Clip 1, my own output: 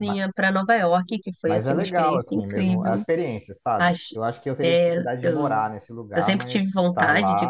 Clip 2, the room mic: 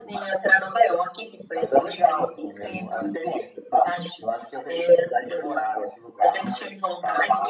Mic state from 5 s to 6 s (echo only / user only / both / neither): echo only